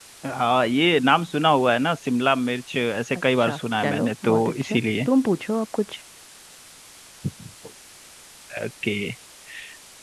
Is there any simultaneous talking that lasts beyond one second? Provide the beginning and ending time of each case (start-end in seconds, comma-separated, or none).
3.4-4.8